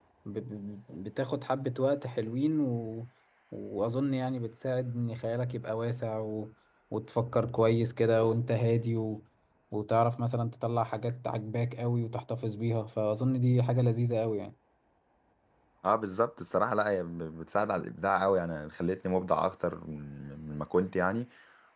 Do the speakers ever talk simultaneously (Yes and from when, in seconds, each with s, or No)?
No